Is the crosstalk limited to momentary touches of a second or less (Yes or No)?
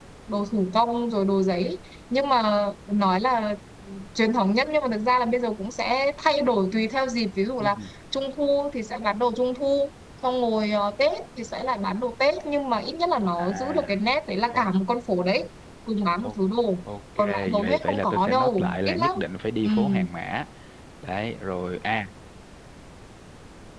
No